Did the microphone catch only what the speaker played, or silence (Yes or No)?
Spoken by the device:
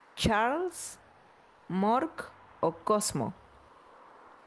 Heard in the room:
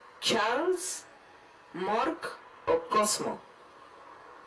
Yes